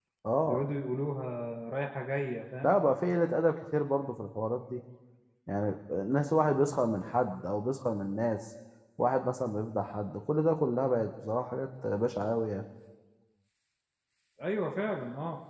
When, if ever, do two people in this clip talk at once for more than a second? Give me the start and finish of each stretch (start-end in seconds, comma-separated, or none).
none